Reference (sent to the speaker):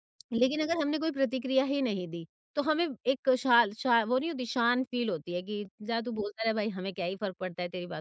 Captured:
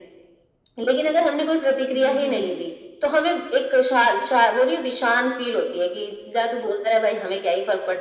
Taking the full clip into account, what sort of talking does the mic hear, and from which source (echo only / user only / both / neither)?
both